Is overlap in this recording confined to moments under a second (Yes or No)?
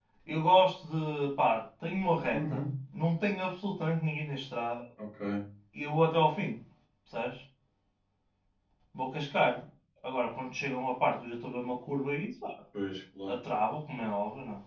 Yes